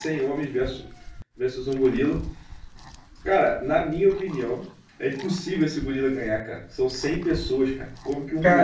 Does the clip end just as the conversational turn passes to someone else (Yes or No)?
Yes